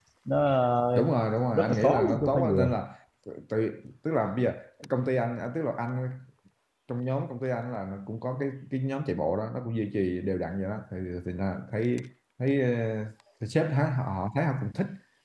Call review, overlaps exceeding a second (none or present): present